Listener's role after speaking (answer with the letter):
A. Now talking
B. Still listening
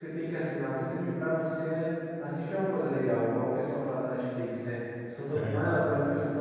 B